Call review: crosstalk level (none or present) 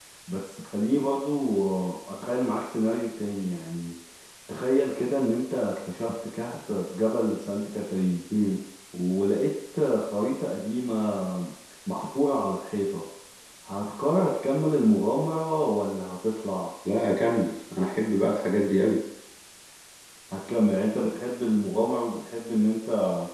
none